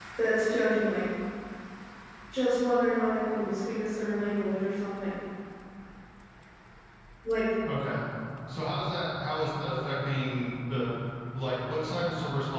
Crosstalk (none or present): none